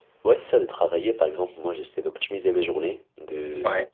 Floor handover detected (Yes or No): No